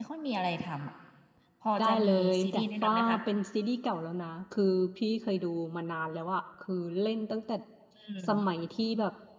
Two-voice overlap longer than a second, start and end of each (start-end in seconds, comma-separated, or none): 1.8-3.2